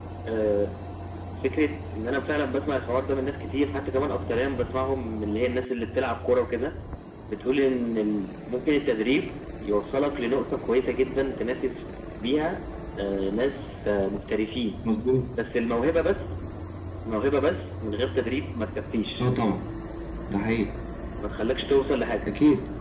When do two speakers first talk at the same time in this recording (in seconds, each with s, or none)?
none